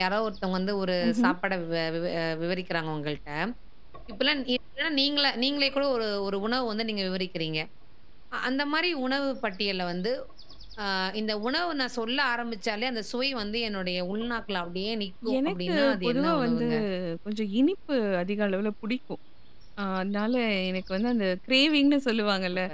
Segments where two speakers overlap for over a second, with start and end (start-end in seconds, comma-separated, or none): 15.5-16.7